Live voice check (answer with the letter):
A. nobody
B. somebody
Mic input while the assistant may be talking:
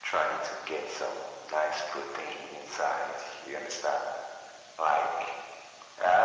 A